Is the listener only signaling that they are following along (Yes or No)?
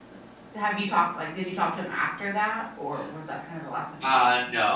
No